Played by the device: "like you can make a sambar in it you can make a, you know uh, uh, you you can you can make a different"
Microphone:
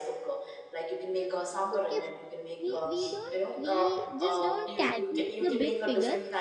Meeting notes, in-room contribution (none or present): present